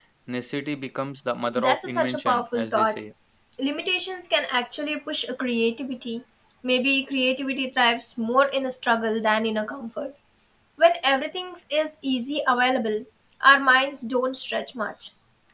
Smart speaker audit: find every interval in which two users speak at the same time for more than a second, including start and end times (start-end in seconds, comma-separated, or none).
1.6-3.0